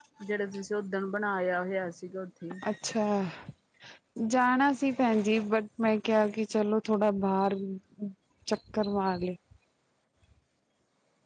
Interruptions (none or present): none